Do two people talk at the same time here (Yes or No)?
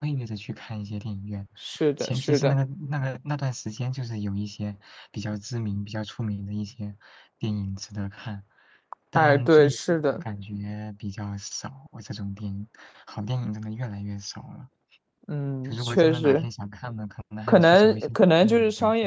Yes